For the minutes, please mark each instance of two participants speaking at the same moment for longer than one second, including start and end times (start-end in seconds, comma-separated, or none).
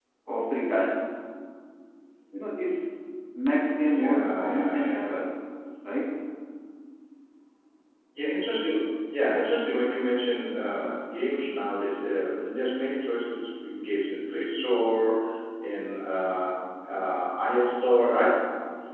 3.9-5.1